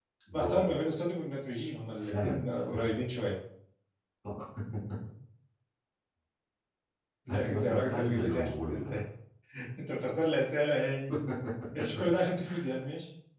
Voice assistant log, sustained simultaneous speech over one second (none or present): present